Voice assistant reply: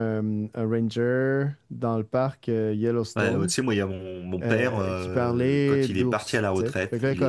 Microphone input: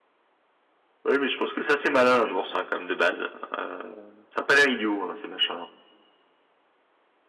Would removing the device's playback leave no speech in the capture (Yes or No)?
No